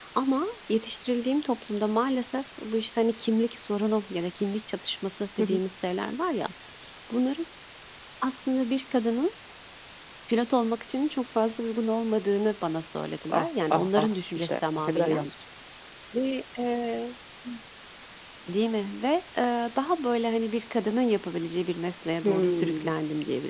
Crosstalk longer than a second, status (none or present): present